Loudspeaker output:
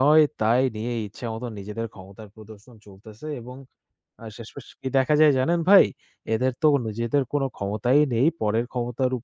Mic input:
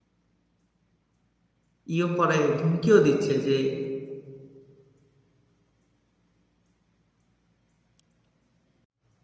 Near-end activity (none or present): present